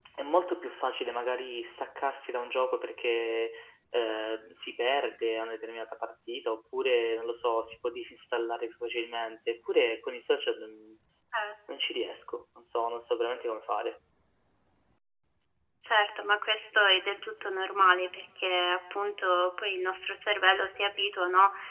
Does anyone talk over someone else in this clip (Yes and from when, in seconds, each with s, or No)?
No